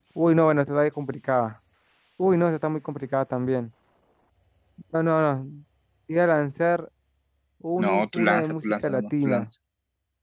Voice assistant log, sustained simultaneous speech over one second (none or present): present